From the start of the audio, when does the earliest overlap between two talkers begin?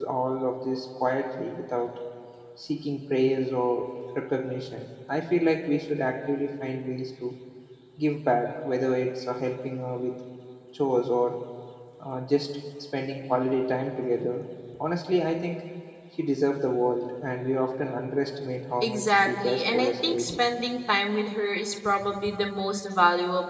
18.8 s

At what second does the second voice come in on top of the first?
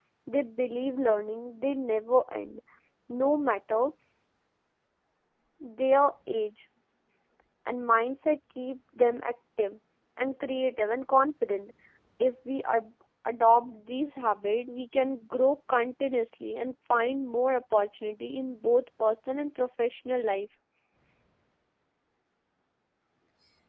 none

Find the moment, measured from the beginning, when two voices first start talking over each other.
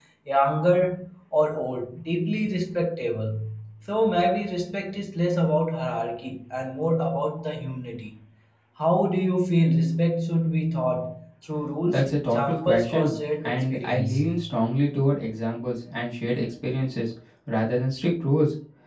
11.8 s

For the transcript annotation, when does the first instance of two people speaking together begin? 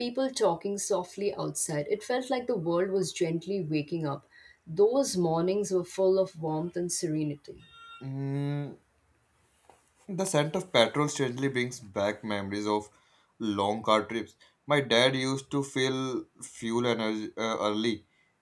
none

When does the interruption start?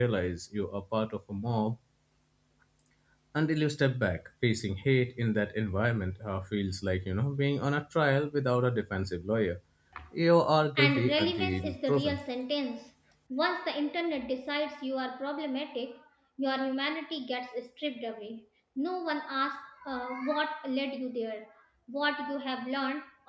10.8 s

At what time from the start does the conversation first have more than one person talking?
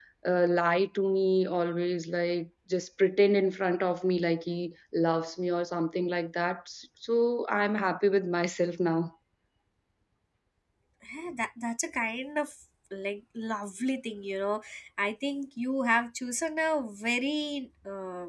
none

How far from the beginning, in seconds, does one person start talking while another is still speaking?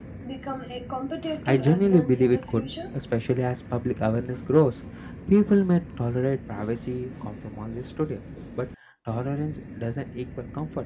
1.4 s

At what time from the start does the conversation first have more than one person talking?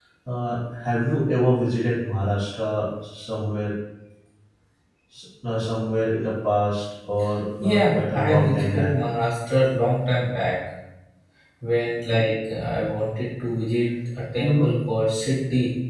7.6 s

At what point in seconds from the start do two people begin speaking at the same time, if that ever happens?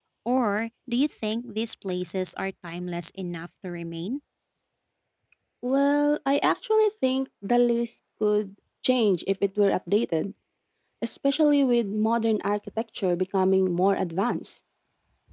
none

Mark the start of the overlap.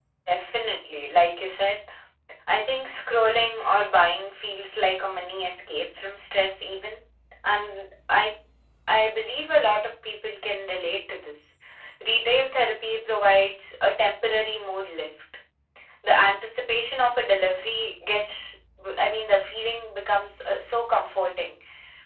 none

